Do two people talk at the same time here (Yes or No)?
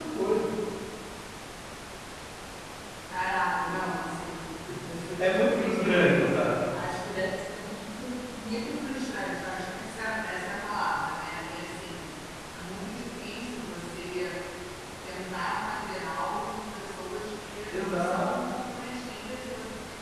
Yes